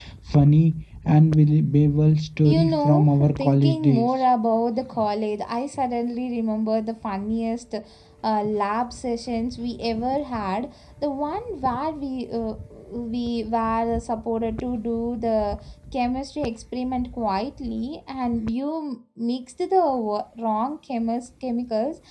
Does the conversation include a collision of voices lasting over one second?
Yes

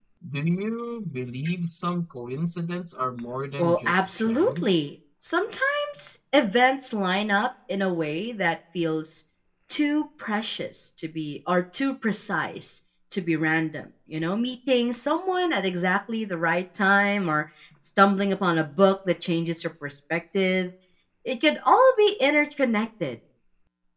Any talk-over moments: Yes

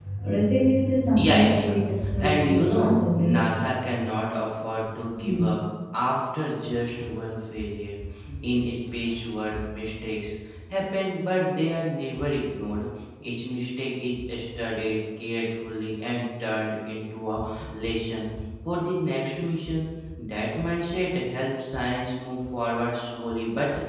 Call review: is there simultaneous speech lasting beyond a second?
Yes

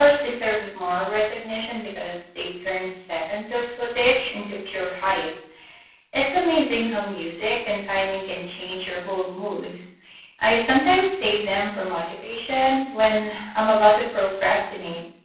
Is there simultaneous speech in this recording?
No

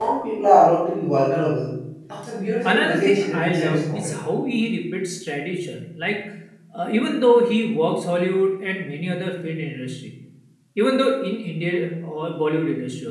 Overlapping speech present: Yes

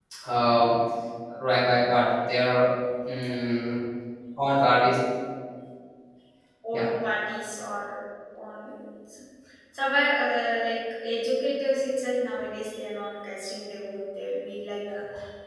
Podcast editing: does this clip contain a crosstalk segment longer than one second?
No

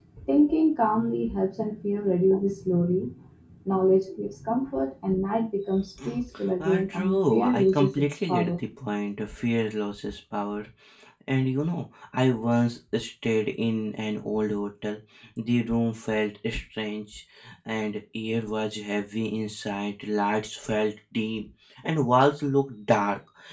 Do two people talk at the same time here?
Yes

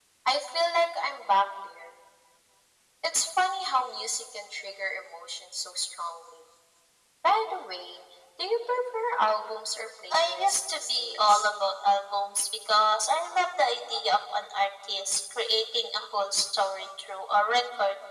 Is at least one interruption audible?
Yes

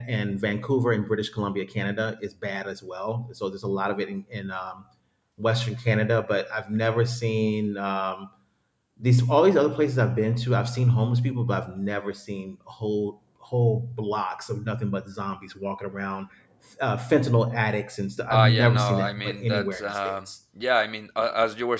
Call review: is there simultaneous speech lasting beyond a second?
Yes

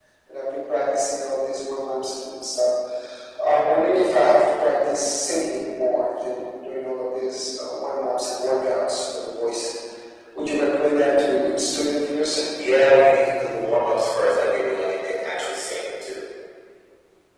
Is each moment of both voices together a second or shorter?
Yes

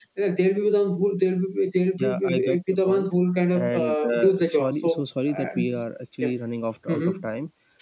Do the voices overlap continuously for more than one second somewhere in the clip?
Yes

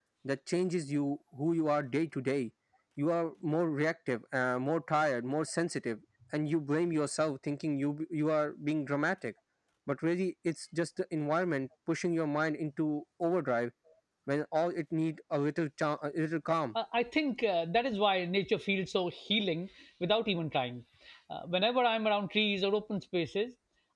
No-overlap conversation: Yes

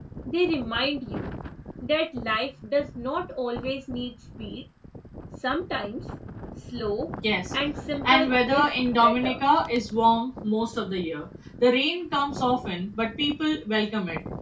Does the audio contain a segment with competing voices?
Yes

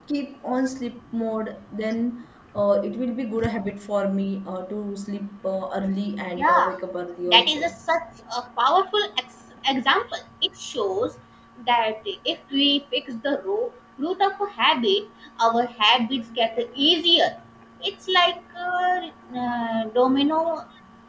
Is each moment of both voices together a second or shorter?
Yes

